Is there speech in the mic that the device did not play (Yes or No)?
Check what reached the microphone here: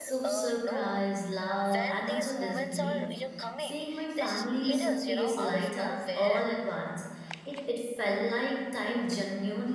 Yes